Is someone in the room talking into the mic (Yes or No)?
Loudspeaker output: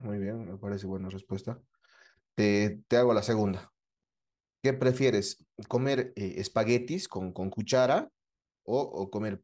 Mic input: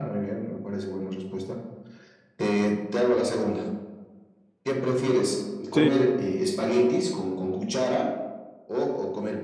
Yes